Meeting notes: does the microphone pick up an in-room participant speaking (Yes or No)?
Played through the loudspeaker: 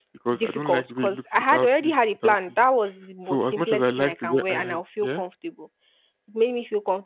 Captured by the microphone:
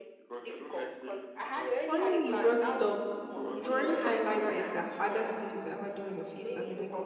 Yes